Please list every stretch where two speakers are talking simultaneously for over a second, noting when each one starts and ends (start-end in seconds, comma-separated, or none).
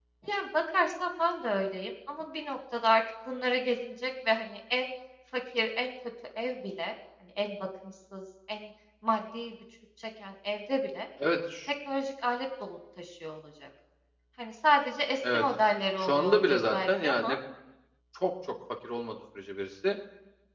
16.0-17.4